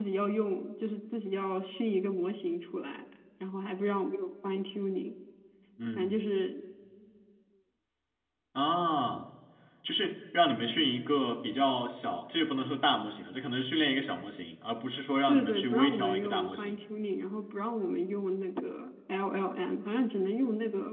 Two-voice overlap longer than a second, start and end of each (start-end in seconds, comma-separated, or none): 15.3-16.8